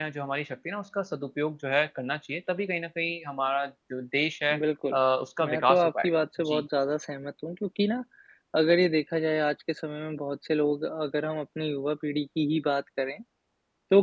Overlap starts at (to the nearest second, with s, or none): 5 s